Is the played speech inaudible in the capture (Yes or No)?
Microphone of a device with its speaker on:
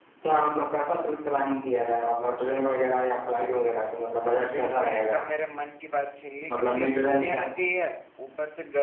No